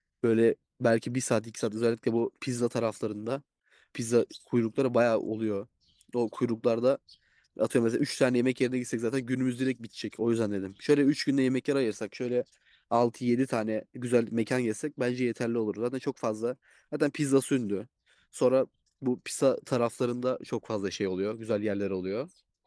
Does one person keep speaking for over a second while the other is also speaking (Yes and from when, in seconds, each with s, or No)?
No